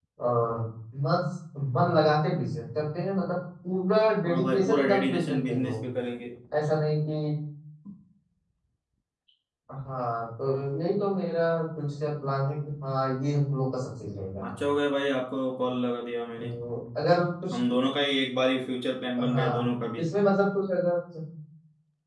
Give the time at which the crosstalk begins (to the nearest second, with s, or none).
4 s